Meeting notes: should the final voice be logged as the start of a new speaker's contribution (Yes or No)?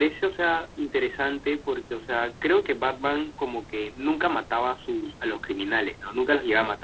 No